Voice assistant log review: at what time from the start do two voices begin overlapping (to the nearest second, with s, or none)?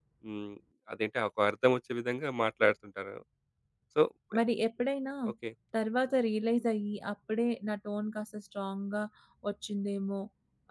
none